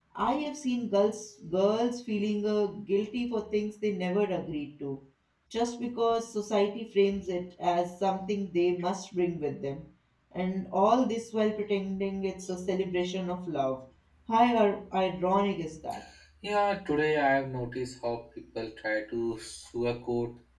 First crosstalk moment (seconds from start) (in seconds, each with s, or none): none